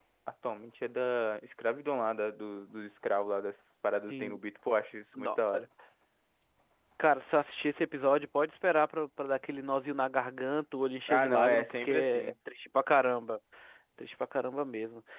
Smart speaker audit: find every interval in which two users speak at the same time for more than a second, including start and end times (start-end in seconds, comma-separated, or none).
11.1-12.3